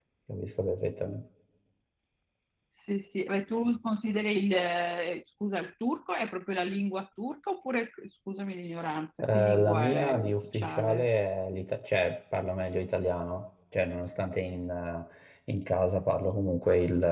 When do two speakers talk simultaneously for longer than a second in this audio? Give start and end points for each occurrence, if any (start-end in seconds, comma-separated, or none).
9.3-11.1